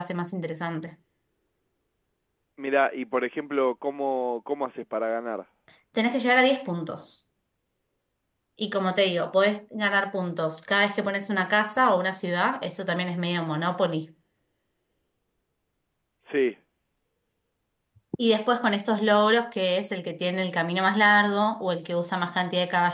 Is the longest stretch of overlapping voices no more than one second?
Yes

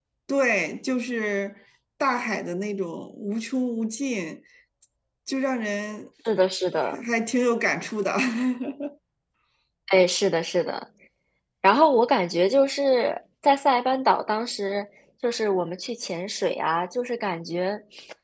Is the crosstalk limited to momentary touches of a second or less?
Yes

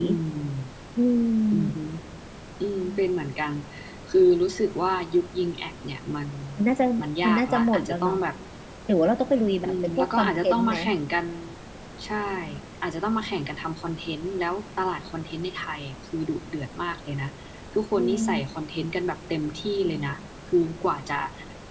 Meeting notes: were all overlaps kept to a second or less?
No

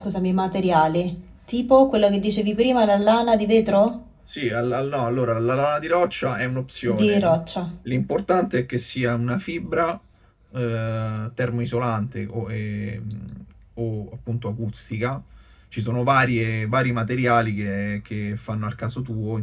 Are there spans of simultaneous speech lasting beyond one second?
No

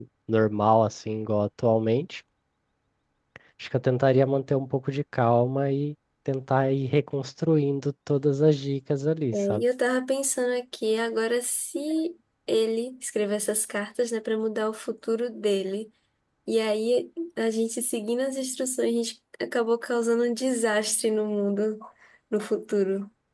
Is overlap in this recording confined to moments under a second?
Yes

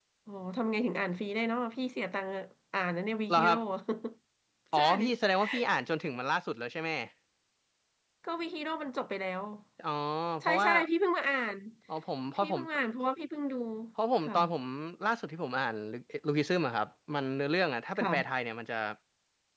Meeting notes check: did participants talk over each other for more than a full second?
No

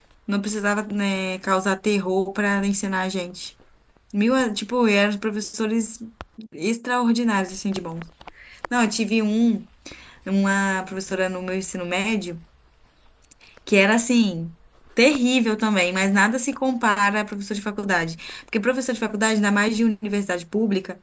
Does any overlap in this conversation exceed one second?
No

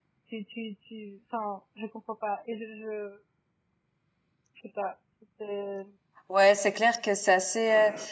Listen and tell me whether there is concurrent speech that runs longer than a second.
No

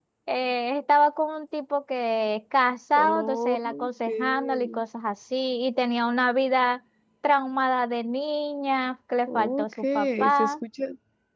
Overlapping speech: Yes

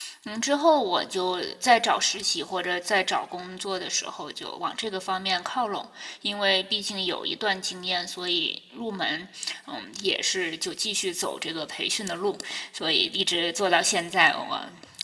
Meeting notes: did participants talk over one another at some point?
No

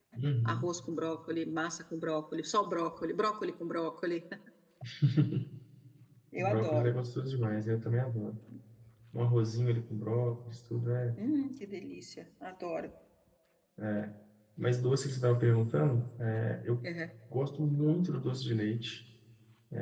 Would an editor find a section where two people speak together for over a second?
No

